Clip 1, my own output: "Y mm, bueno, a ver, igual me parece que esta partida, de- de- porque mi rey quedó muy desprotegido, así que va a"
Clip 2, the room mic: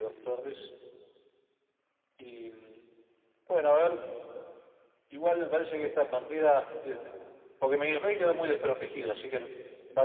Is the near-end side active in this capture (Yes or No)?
No